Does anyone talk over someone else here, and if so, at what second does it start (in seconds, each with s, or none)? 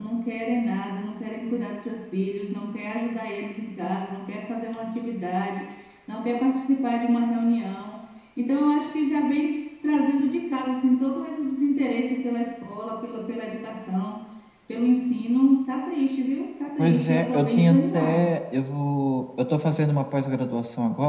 16.8 s